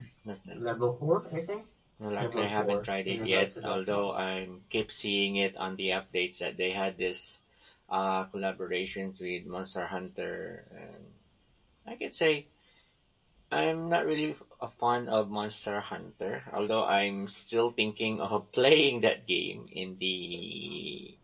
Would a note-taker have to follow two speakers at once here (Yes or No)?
Yes